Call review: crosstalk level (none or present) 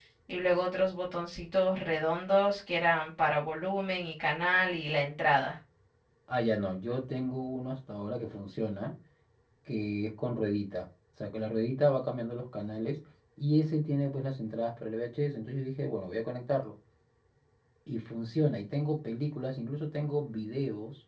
none